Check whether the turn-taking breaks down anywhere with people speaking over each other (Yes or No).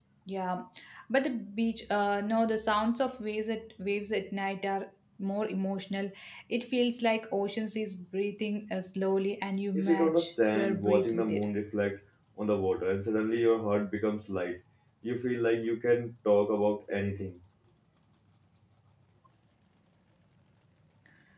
Yes